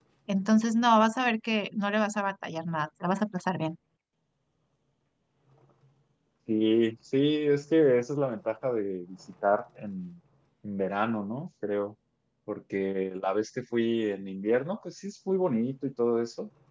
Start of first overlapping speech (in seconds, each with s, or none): none